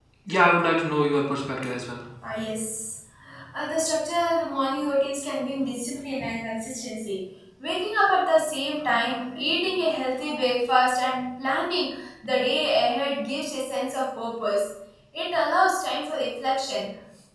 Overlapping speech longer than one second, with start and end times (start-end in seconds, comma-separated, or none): none